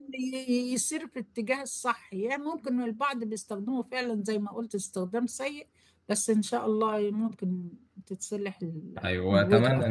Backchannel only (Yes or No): No